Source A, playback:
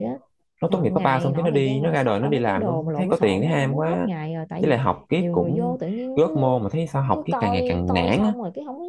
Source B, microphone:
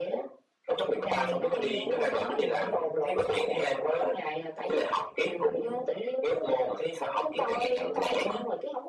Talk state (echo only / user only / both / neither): both